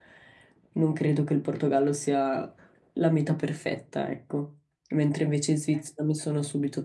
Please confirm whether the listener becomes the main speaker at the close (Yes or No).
No